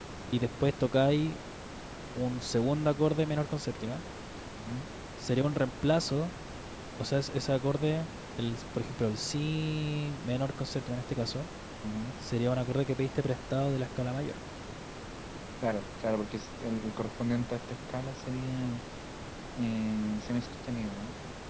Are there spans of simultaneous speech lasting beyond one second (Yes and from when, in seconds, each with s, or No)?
No